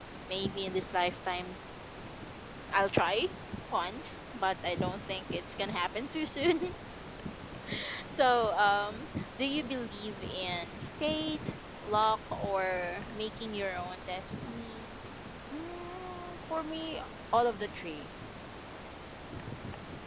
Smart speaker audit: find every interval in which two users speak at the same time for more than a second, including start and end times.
none

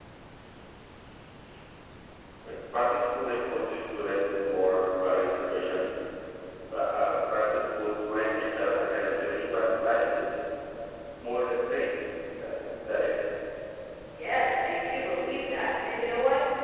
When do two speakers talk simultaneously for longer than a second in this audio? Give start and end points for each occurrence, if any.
none

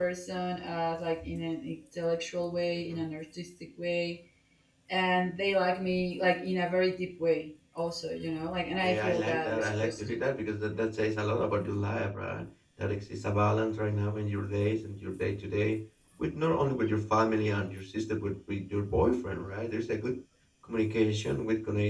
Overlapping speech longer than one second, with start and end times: 8.8-10.2

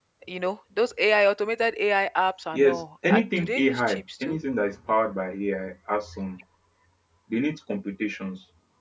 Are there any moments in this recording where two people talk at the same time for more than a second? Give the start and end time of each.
2.5-4.4

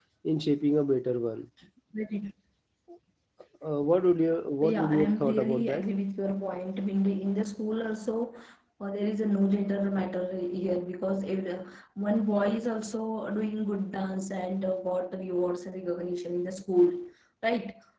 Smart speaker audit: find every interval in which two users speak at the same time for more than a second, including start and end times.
4.6-5.9

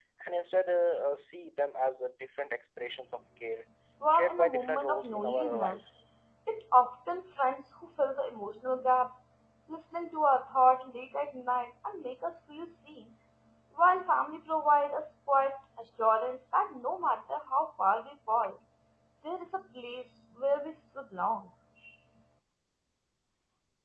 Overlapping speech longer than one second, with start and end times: 4.1-5.8

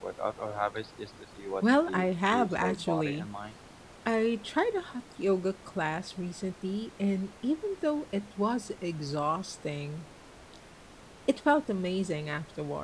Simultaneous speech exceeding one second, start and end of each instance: 1.6-3.3

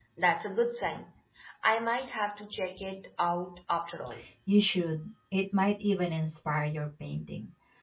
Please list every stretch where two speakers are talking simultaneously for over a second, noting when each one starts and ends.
none

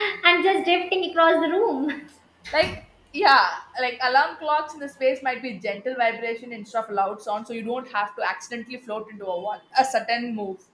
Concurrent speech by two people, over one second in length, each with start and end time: none

